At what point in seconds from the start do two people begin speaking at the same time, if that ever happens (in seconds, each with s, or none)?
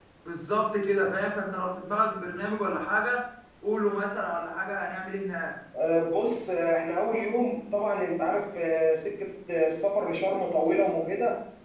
none